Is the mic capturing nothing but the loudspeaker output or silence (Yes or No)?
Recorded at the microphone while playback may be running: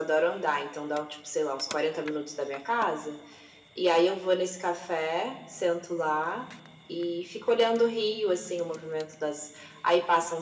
Yes